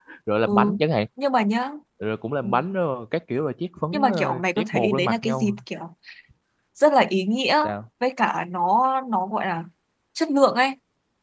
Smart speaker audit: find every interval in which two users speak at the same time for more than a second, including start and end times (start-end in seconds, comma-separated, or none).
3.9-5.5